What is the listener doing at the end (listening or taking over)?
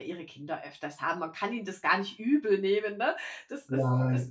listening